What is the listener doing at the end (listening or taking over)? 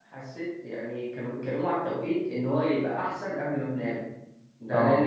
listening